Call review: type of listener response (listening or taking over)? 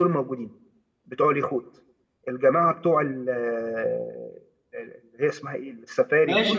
taking over